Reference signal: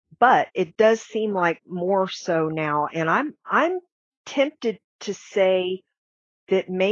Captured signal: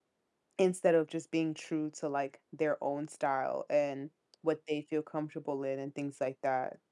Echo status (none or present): none